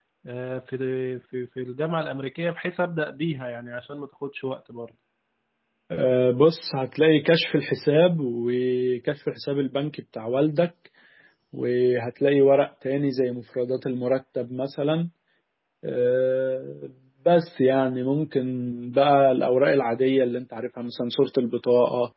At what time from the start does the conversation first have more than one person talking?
none

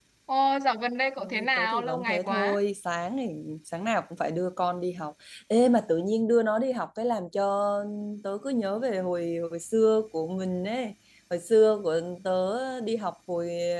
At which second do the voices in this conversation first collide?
1 s

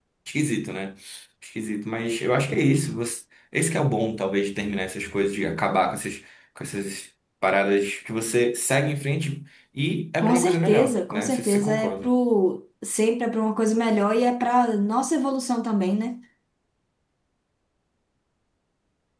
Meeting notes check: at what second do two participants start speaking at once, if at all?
10 s

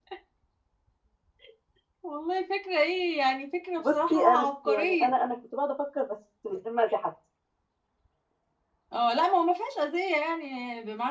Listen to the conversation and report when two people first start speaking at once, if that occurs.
4 s

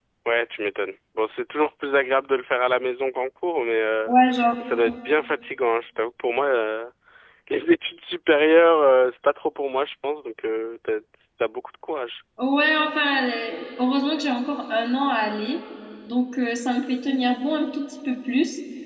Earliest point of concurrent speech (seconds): none

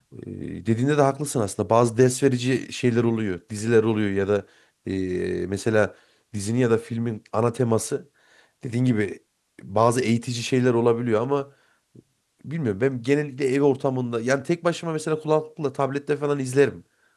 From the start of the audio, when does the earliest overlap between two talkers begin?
none

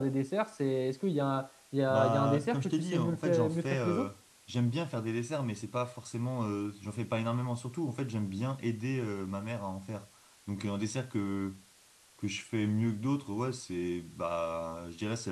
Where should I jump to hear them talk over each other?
2 s

